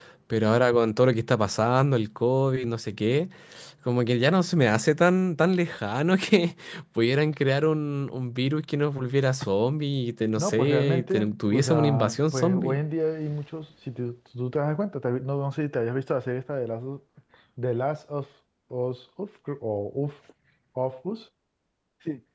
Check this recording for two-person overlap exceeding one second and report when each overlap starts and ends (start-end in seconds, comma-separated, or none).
10.4-12.8